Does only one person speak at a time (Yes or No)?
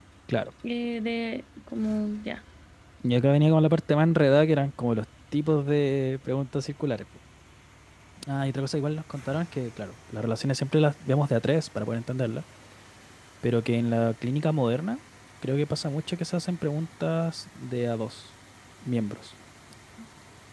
Yes